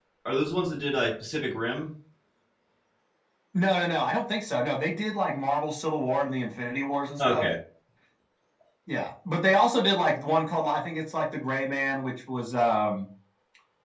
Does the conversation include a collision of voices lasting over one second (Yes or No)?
No